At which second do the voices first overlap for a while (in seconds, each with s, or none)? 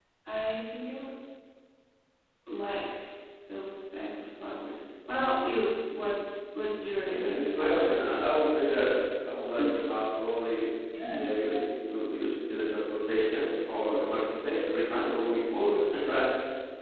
7.0 s